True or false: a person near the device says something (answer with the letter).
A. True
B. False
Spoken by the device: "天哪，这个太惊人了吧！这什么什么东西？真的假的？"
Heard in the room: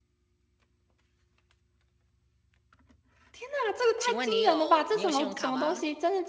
A